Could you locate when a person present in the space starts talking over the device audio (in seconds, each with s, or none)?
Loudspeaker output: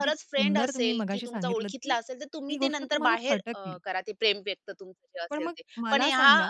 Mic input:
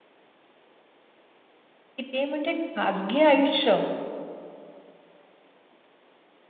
2.0 s